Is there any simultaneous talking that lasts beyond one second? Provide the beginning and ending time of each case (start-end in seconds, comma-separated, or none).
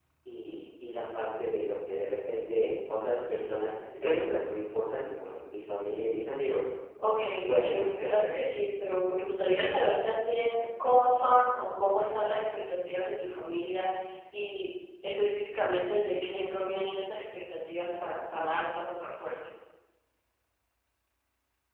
7.2-8.4